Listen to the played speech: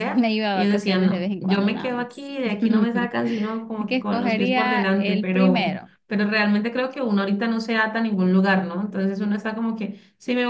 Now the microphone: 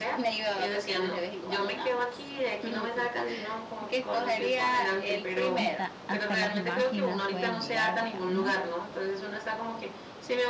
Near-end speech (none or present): present